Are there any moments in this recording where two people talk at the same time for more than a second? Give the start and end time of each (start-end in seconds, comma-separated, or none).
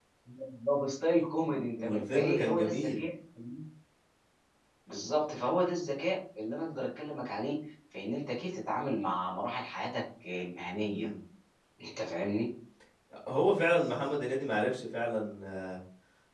1.5-3.0